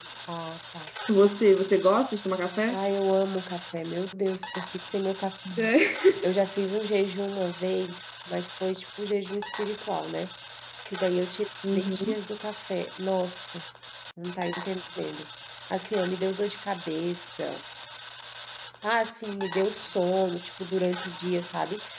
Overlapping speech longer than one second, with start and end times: none

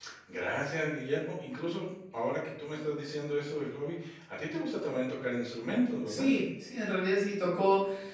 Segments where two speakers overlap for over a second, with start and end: none

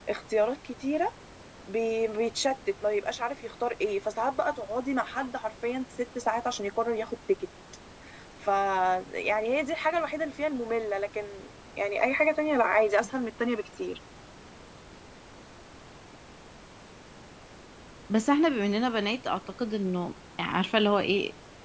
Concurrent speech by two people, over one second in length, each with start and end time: none

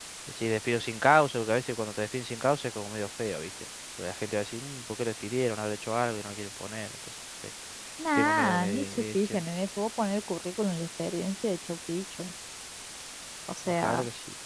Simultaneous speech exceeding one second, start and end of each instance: 8.2-9.4

